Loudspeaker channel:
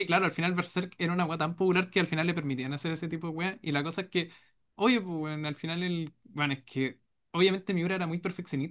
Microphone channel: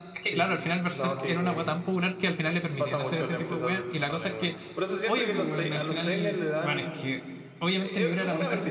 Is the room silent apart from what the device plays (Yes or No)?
No